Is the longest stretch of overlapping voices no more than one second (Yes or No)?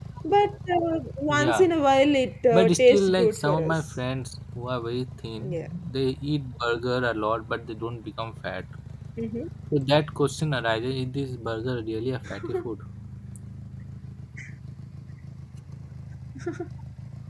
No